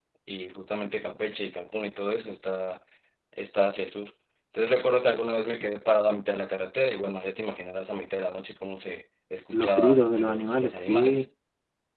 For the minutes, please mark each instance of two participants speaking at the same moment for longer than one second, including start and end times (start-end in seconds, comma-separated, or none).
9.5-11.2